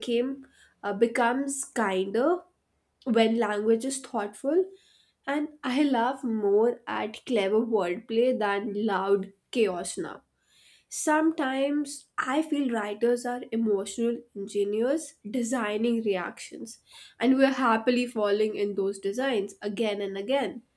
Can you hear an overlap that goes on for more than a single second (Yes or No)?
No